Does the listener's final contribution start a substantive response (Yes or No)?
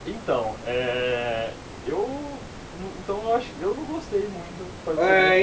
Yes